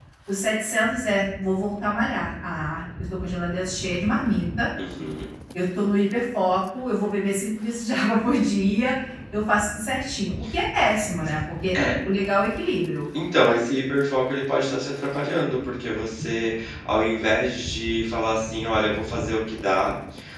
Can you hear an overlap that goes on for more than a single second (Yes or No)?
No